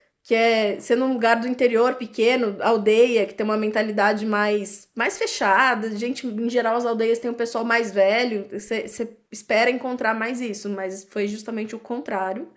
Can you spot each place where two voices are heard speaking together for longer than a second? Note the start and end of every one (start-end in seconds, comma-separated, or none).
none